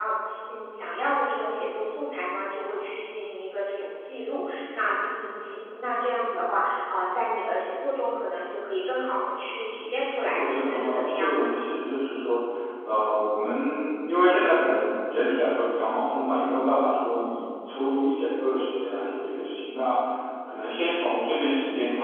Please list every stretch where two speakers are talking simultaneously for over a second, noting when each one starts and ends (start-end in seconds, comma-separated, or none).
10.3-11.5